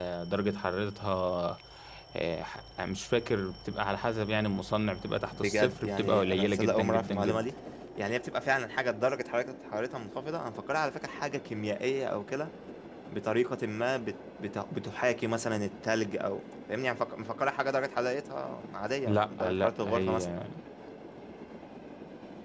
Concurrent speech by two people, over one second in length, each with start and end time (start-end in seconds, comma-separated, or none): 5.3-7.5, 19.1-20.3